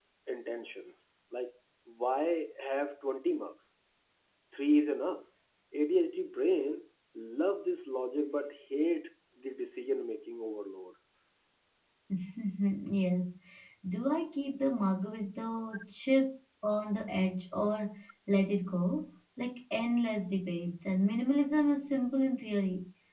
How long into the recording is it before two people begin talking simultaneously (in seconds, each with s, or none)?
none